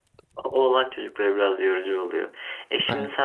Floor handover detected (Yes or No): No